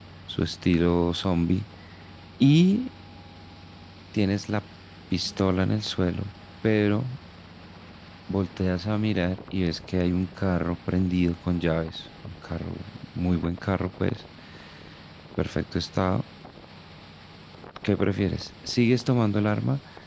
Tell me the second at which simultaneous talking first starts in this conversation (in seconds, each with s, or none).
none